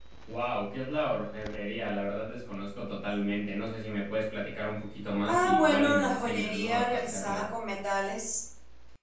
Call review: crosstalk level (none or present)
present